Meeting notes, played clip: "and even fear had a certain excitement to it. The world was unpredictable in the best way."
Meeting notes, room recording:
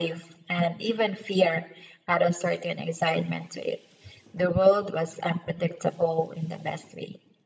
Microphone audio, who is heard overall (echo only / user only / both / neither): echo only